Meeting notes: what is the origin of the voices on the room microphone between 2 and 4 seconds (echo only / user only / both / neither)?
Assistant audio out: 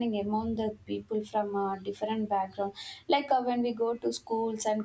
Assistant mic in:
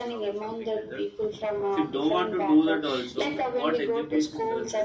both